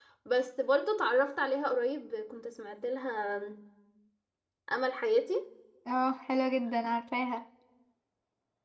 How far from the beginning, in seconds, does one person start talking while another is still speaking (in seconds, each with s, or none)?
none